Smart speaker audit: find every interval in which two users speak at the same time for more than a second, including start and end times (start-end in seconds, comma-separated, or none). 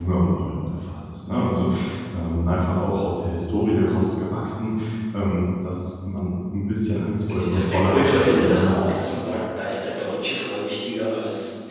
7.4-8.8